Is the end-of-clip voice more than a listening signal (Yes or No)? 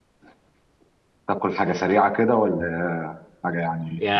Yes